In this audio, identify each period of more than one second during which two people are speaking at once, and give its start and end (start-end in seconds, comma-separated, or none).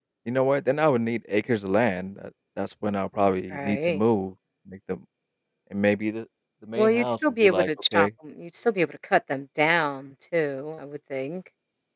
6.8-8.1